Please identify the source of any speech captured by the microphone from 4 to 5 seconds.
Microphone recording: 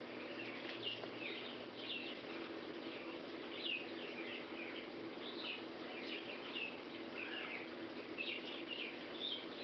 neither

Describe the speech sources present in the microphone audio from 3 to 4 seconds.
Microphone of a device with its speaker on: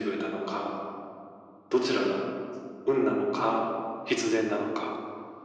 echo only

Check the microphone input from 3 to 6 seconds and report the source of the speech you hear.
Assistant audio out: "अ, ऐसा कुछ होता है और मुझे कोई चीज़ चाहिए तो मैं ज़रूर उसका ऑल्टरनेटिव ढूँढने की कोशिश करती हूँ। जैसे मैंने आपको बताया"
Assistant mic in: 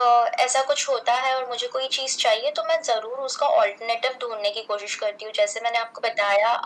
echo only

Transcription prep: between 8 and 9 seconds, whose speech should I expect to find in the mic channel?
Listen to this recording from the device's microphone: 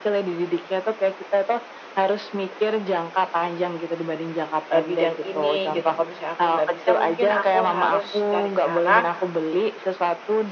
both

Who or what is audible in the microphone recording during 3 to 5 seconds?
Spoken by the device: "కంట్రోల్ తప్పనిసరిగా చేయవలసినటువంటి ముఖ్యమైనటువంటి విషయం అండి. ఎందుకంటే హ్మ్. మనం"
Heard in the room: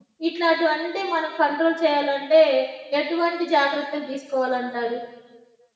user only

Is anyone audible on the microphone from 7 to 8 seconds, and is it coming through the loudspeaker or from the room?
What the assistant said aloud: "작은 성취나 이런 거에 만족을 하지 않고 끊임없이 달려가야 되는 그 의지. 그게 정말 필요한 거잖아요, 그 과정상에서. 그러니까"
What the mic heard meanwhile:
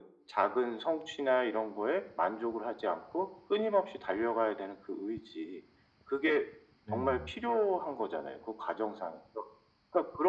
both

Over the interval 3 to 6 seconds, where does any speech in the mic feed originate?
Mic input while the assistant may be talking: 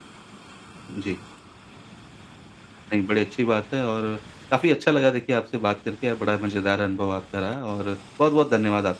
echo only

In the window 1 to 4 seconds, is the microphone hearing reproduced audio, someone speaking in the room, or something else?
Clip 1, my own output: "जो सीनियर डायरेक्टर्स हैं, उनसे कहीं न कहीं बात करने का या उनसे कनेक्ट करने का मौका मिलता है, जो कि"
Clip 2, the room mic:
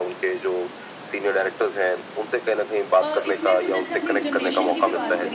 both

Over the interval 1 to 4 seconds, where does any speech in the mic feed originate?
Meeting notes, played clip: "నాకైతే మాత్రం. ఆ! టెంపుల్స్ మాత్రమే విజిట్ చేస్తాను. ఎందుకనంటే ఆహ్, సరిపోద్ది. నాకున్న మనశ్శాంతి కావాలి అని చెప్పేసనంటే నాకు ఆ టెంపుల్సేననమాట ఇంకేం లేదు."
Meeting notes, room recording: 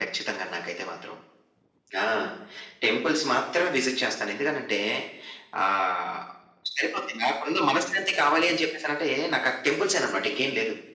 echo only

